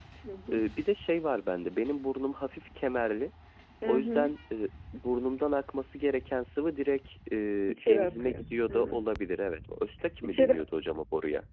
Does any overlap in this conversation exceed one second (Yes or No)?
Yes